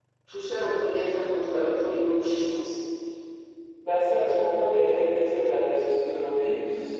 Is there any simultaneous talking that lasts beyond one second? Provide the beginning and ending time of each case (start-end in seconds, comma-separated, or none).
none